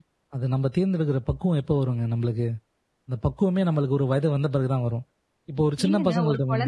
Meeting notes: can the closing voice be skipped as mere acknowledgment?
No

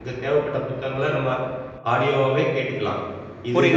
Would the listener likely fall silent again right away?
No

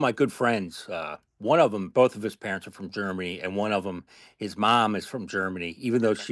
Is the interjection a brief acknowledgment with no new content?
Yes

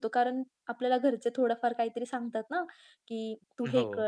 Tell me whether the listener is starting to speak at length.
No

